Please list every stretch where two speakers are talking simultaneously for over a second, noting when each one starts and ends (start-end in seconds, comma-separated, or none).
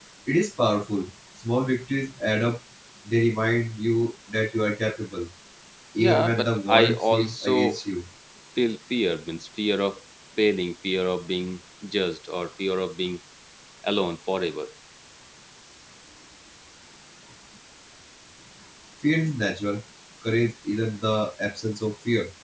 6.0-7.8